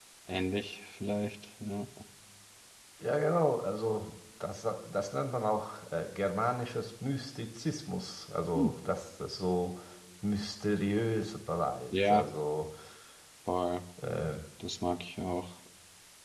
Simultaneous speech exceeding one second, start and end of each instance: none

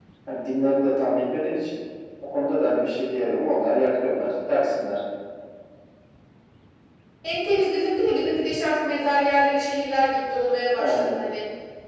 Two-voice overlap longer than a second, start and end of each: none

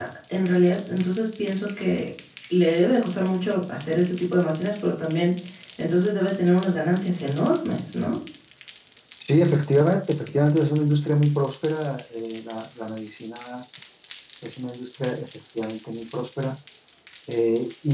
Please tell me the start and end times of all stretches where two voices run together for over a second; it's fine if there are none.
none

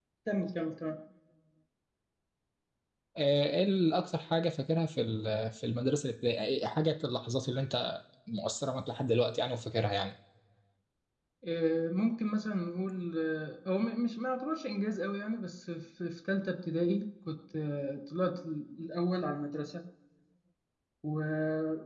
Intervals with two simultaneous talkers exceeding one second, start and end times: none

